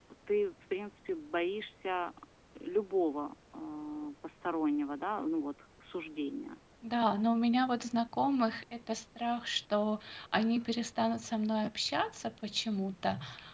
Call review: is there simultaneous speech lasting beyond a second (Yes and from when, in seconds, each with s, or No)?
No